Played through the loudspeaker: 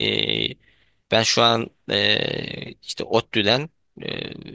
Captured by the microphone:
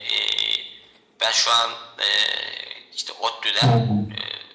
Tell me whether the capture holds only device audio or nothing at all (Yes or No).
No